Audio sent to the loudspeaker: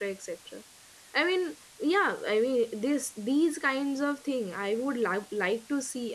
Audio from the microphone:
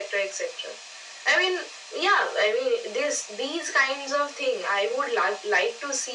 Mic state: echo only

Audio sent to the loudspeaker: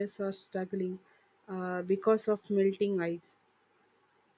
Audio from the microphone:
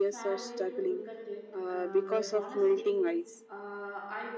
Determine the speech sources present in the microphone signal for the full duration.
both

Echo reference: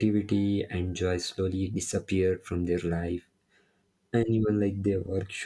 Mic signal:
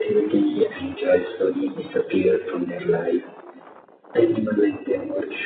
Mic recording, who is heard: echo only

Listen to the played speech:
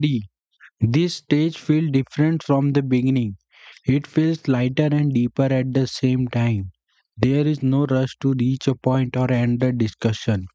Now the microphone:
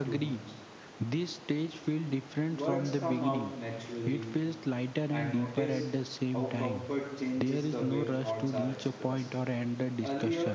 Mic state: both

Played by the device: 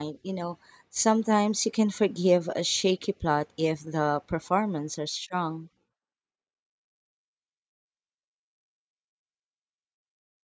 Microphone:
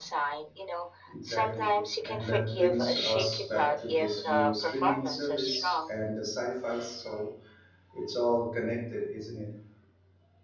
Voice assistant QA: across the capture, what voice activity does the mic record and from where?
both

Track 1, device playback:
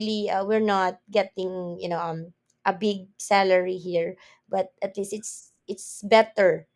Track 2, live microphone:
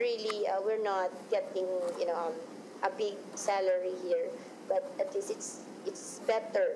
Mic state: echo only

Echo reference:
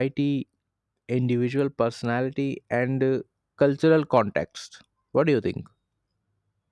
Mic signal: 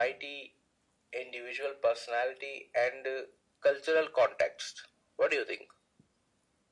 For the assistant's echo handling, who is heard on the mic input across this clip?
echo only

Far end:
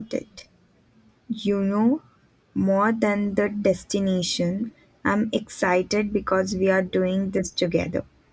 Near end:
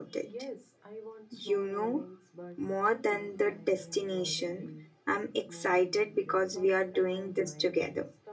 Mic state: both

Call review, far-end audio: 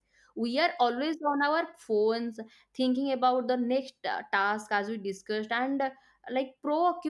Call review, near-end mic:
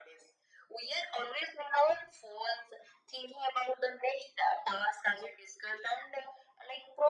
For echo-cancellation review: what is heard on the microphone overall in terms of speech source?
echo only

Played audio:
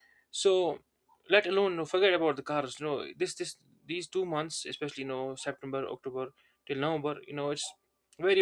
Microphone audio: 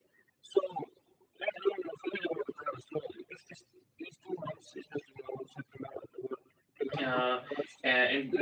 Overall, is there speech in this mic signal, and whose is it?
both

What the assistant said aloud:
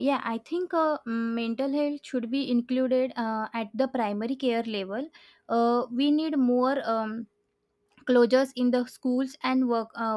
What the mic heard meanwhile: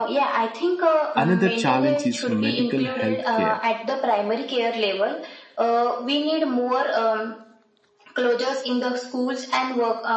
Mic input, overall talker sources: both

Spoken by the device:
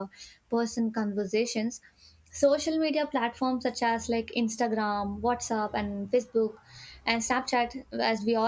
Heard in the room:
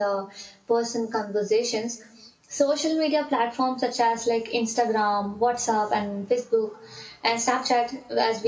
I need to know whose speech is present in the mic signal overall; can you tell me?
echo only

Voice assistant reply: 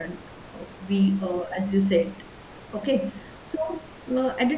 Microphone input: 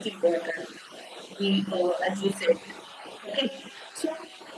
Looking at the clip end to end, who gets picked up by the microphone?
echo only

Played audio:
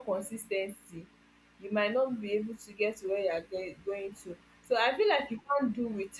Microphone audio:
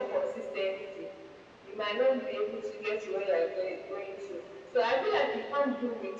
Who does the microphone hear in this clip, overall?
echo only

